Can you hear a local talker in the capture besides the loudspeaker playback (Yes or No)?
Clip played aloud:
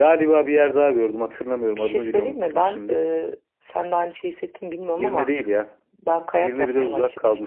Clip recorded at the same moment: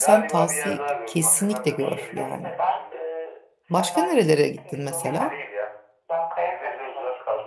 Yes